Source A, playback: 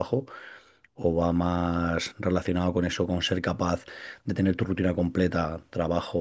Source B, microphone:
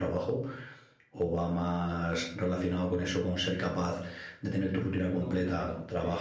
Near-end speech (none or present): present